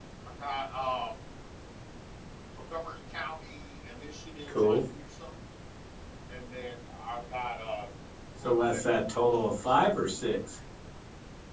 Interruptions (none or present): present